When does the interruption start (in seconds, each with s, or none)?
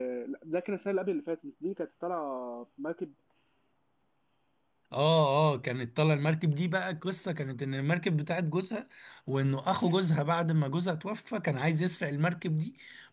none